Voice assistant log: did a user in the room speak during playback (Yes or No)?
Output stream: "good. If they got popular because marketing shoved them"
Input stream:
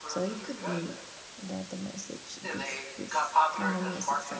Yes